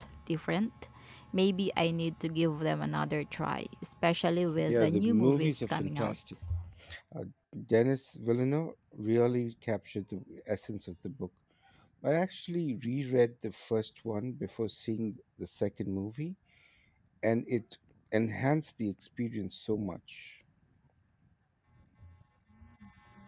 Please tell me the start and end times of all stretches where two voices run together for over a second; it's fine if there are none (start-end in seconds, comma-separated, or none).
4.7-6.2